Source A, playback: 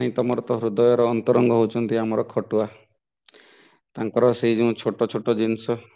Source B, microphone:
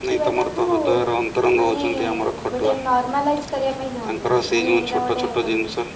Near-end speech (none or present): present